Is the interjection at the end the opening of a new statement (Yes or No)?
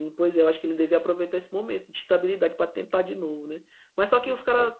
No